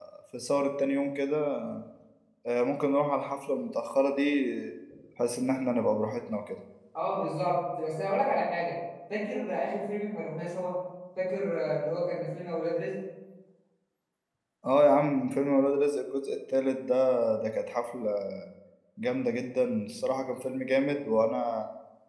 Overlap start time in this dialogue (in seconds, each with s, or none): none